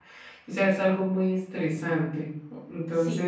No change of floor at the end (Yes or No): No